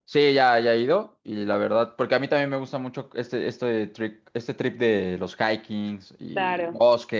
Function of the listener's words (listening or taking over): listening